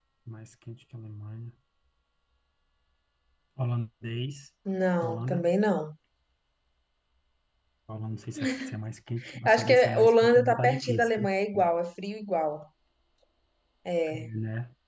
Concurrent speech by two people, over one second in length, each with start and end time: 9.5-11.3

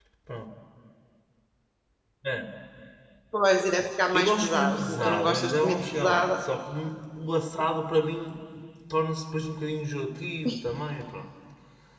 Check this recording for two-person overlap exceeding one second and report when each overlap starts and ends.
4.1-6.4

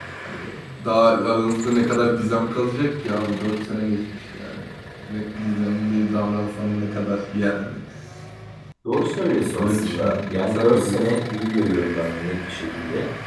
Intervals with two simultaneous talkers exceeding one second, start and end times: 9.6-11.0

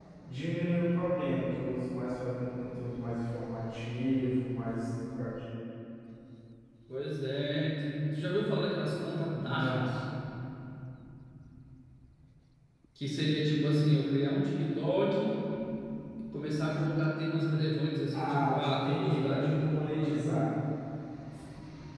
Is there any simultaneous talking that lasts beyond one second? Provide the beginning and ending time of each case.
18.1-20.3

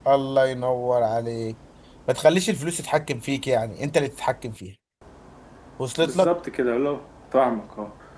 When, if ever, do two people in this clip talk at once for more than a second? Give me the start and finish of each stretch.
none

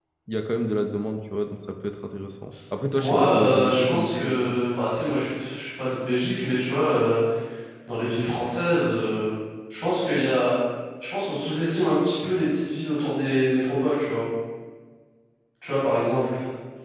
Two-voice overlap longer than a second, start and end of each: 3.0-4.5

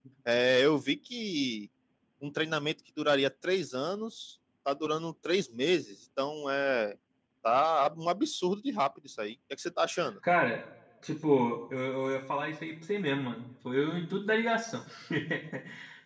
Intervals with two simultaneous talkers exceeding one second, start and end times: none

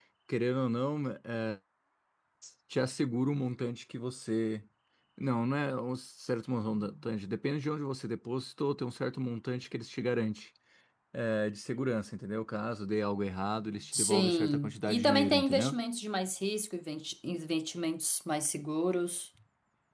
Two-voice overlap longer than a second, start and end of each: 13.9-15.7

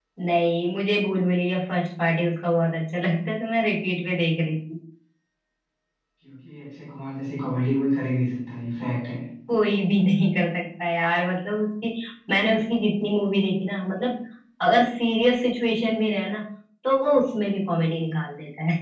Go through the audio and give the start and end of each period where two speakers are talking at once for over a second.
none

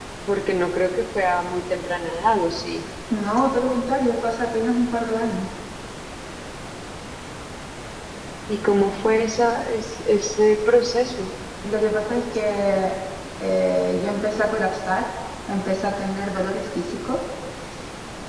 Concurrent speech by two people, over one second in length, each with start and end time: none

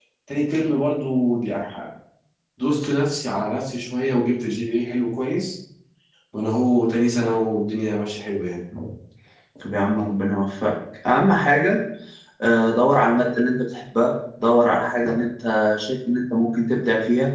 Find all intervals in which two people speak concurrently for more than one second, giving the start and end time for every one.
none

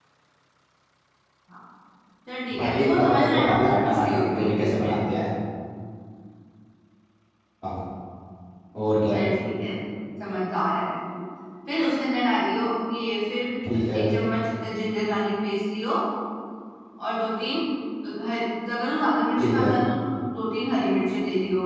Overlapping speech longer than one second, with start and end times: 2.6-5.0

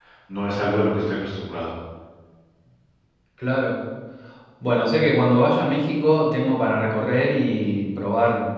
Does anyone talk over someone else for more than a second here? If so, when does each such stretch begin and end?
none

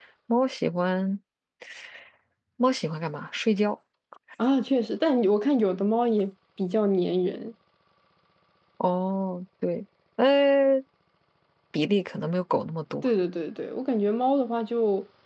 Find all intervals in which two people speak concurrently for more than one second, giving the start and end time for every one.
none

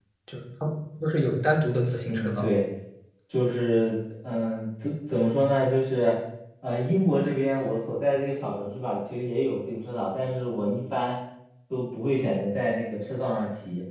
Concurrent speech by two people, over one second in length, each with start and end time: none

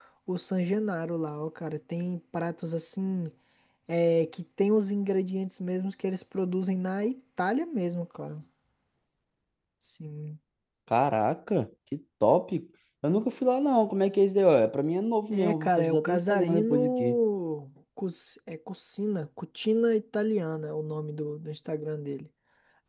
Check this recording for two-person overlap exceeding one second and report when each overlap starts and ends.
15.3-17.2

